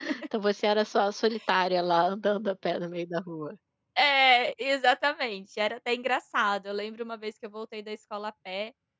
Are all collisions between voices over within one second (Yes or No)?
Yes